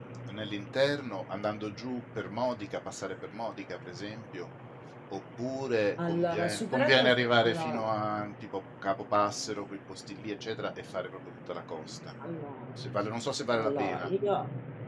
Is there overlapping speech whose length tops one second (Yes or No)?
Yes